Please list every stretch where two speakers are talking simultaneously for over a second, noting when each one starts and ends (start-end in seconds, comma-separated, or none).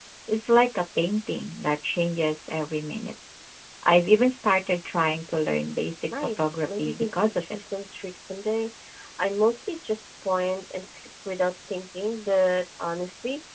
6.1-7.4